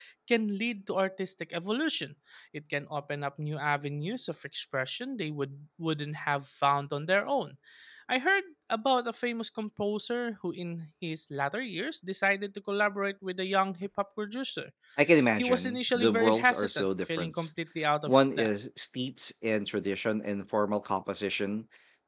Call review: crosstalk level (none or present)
present